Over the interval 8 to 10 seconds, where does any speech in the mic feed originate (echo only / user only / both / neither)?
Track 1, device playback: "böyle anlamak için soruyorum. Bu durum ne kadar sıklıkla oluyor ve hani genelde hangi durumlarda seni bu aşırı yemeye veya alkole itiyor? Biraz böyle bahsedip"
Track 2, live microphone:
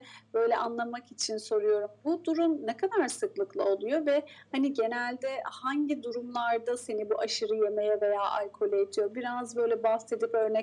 echo only